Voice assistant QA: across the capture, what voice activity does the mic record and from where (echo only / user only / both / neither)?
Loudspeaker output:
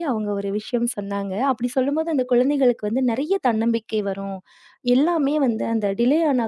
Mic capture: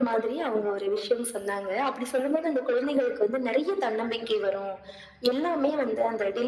echo only